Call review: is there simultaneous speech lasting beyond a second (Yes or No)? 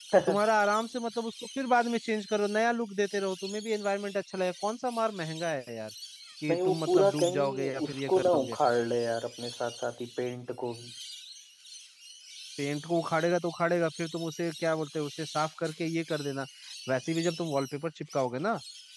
Yes